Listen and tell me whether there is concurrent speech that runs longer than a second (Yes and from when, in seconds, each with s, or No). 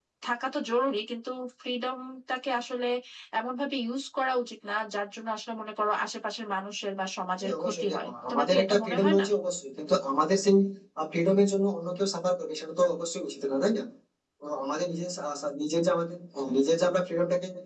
Yes, from 7.4 s